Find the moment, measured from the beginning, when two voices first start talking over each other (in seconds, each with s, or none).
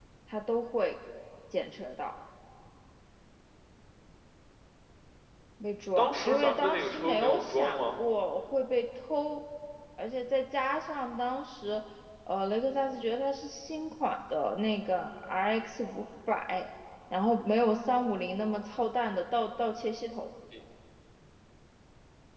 6.0 s